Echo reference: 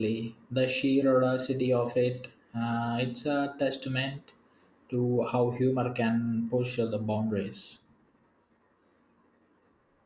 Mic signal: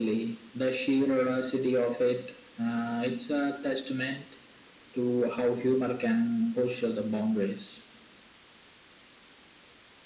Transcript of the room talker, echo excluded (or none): none